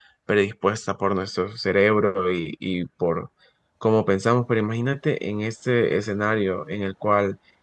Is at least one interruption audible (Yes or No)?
No